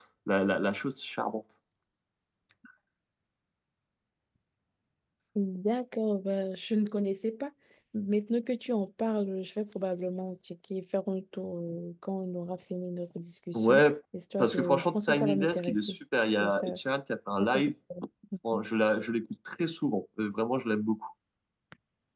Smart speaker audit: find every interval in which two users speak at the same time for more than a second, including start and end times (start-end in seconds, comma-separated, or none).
14.4-16.8